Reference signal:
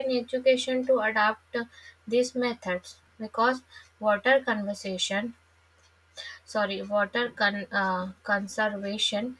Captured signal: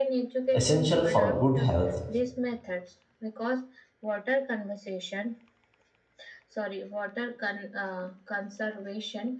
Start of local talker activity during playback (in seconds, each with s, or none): 0.5 s